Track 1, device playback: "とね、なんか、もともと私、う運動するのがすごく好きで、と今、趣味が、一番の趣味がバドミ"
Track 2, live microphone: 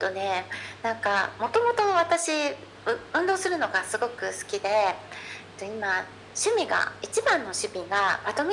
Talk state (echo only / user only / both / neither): echo only